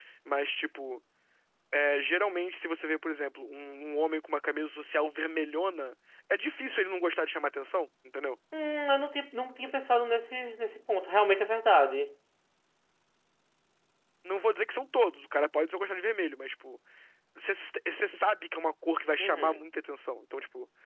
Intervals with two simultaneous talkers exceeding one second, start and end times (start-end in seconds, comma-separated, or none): none